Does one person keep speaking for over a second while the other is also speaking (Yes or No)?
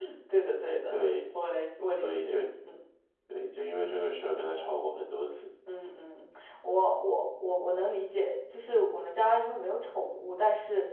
No